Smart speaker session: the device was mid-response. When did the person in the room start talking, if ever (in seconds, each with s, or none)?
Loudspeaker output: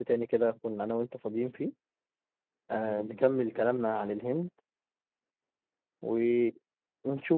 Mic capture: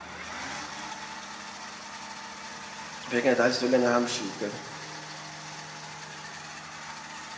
3.1 s